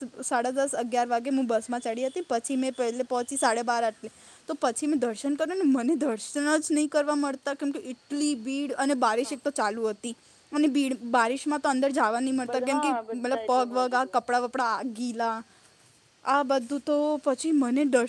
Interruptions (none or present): present